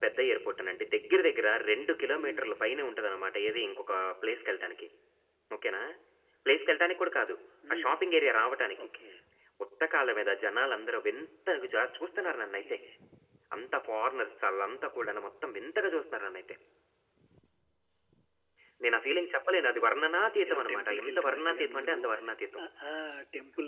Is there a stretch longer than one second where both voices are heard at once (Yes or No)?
Yes